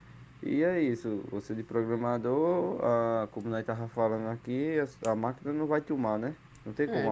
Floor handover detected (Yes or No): Yes